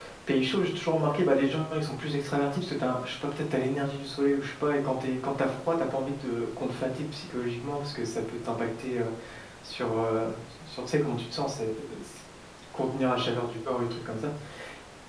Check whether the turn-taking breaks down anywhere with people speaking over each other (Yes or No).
No